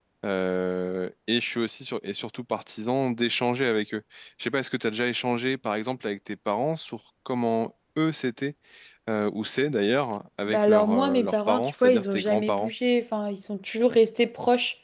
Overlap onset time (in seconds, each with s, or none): 10.5 s